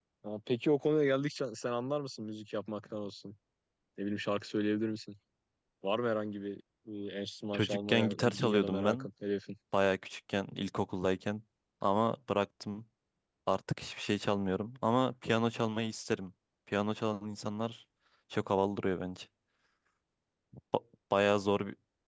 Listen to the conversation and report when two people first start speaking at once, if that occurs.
7.5 s

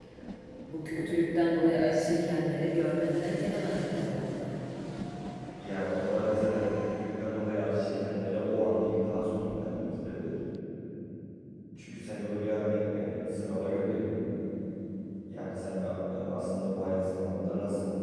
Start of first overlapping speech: none

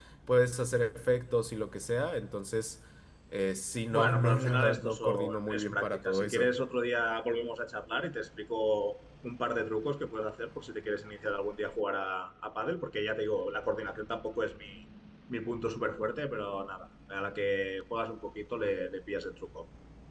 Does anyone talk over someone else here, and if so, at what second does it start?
3.9 s

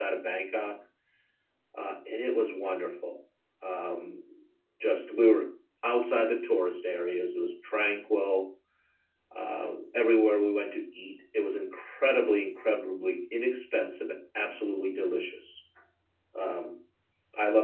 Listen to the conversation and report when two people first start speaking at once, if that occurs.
none

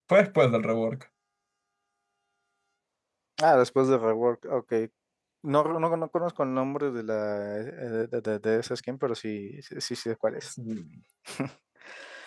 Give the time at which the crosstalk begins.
none

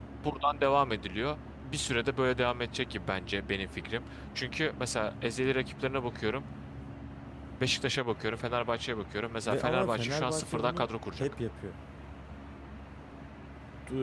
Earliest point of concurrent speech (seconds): 9.4 s

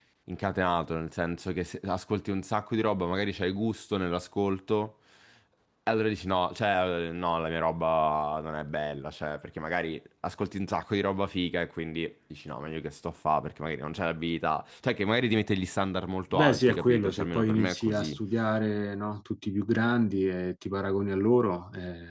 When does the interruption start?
16.3 s

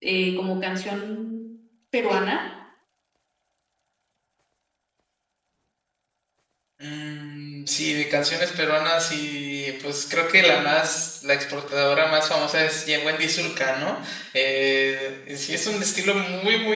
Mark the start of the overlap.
none

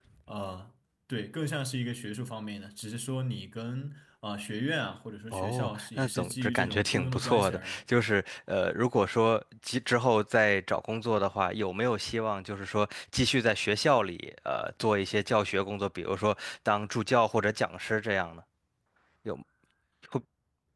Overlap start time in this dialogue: 5.3 s

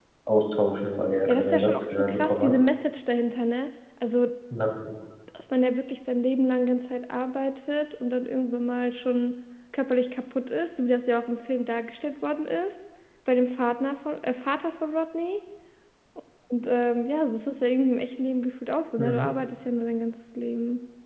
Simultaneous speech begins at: 1.3 s

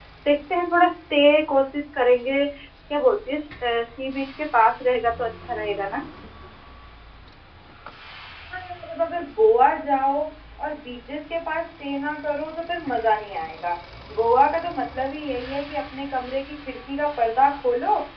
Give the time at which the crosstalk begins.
none

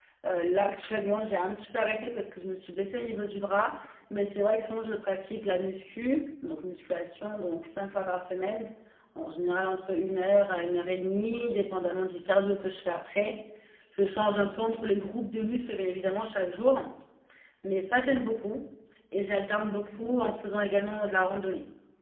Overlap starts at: none

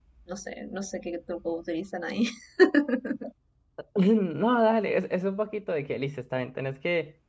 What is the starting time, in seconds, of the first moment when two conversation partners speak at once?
none

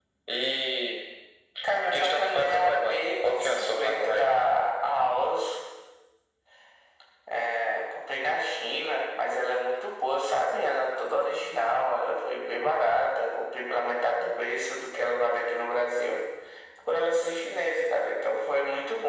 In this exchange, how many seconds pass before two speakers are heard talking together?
1.8 s

